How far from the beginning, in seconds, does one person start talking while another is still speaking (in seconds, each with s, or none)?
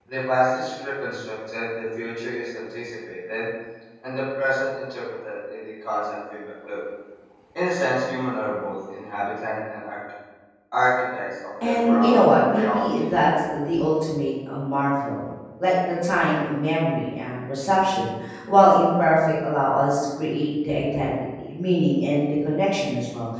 11.6 s